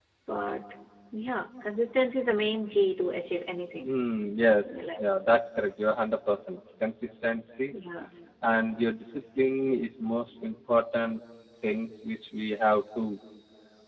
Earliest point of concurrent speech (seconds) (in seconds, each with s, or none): none